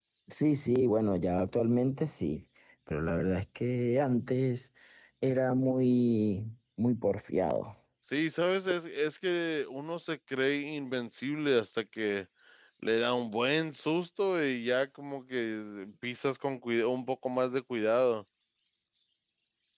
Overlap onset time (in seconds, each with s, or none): none